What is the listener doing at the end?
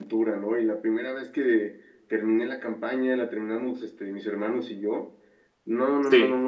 listening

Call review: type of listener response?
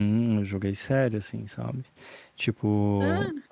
listening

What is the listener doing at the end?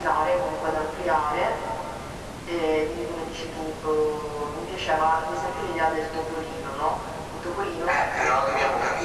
taking over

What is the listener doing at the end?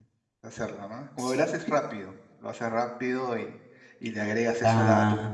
listening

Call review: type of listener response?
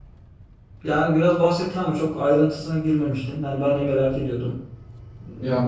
taking over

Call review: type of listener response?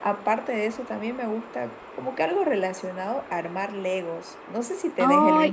taking over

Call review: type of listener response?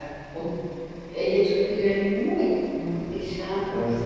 taking over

